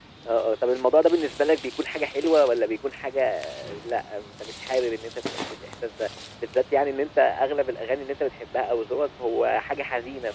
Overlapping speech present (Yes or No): No